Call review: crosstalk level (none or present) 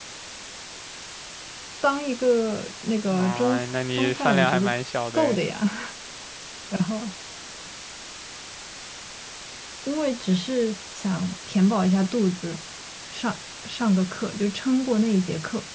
present